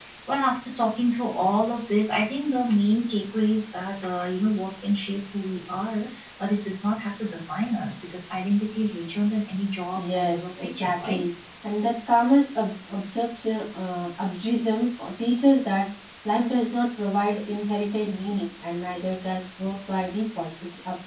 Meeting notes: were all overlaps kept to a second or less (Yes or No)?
No